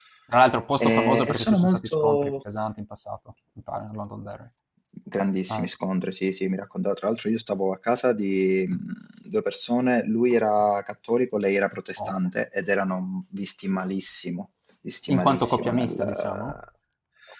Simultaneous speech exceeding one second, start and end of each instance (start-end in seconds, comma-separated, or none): 0.8-2.3, 15.1-16.6